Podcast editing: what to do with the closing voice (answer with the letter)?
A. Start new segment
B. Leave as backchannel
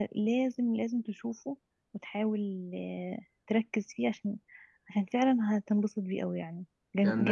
A